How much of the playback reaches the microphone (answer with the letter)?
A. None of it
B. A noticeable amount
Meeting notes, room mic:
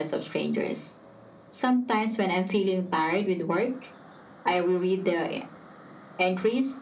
B